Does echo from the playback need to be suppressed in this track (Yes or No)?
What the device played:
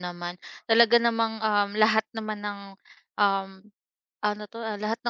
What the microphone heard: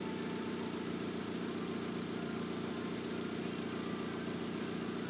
No